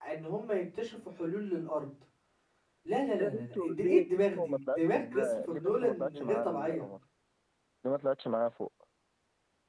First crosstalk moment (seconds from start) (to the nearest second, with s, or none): 3 s